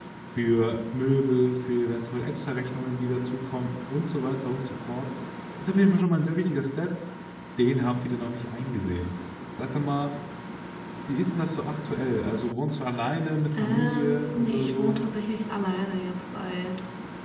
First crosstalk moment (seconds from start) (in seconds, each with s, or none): 13.5 s